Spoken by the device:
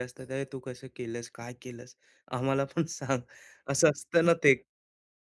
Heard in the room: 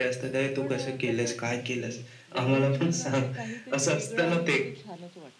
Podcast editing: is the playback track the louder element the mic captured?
Yes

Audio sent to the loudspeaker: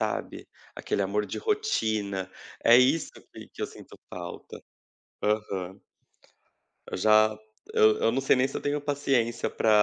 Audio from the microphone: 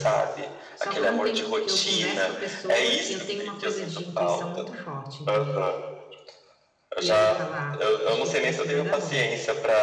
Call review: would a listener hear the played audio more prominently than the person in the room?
Yes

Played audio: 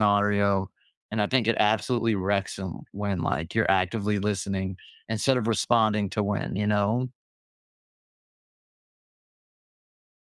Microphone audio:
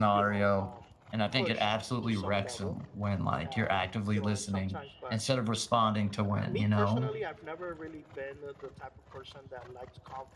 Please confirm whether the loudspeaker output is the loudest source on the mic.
Yes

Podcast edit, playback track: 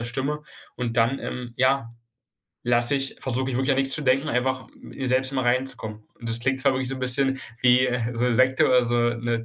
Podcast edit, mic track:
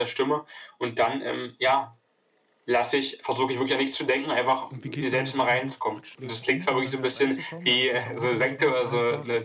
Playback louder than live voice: Yes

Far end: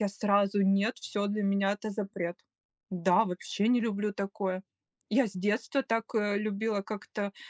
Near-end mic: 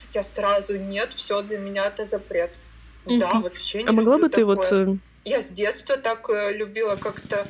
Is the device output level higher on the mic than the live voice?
No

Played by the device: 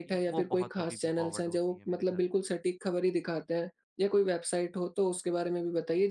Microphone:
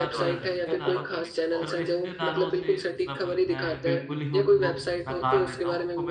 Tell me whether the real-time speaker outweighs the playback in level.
No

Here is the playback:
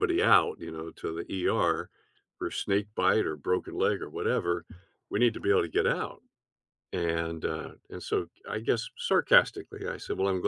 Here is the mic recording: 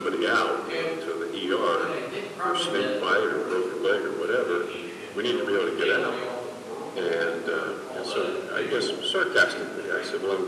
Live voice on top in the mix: No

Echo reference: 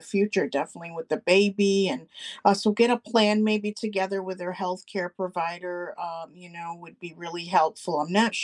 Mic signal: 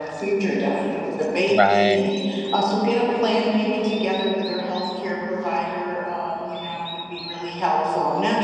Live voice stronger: Yes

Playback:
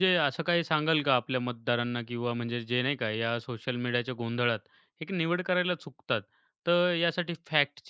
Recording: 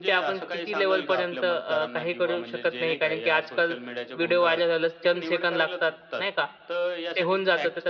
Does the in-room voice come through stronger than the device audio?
Yes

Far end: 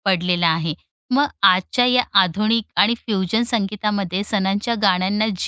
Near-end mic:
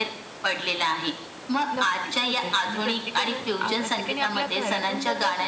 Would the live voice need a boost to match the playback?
Yes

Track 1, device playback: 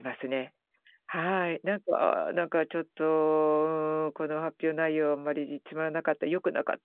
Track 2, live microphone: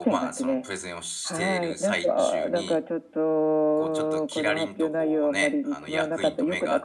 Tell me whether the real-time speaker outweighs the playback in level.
No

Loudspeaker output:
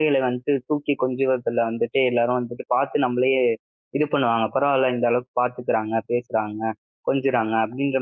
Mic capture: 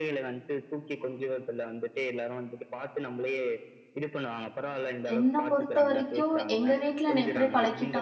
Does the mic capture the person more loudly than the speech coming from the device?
Yes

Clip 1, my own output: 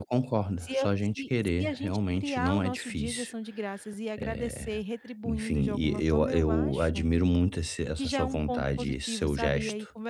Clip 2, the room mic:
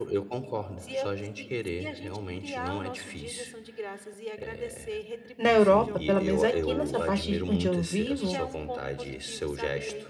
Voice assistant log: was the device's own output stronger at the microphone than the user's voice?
No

